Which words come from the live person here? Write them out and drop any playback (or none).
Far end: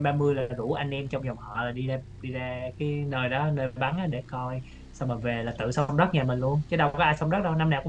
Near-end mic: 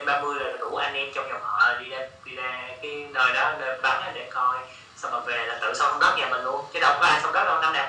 none